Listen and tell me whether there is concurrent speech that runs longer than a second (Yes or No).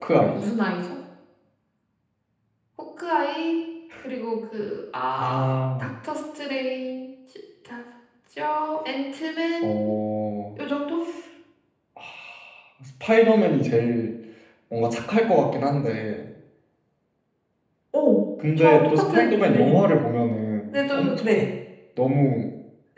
Yes